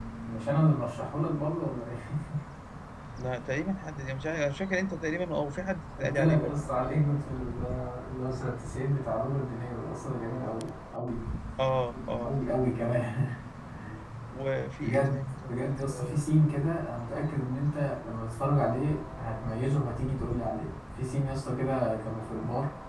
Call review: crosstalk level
present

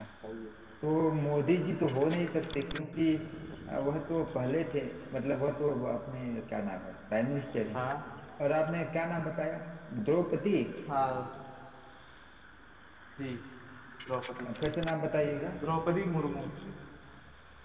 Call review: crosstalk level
none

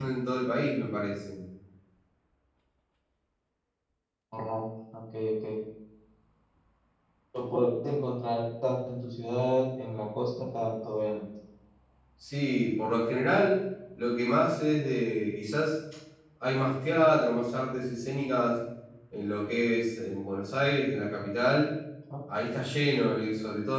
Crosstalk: none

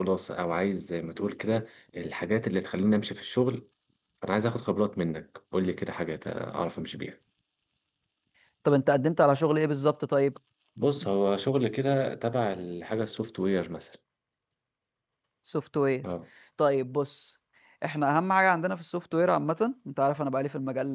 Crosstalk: none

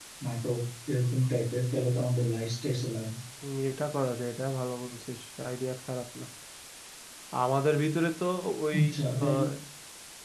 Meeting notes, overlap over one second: none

